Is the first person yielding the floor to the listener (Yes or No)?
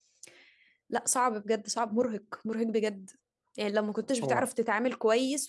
No